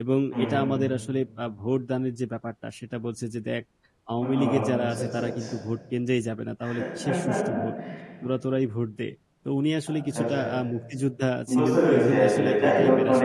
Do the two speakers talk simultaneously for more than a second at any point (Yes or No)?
Yes